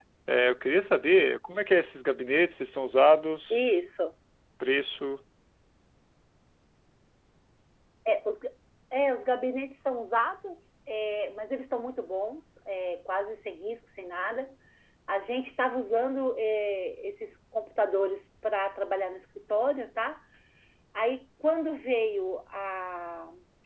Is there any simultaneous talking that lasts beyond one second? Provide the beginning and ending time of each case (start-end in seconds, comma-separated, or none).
none